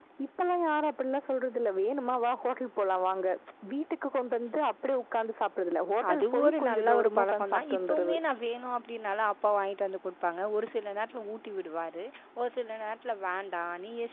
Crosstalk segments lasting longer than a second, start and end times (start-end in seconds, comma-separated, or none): 6.1-8.2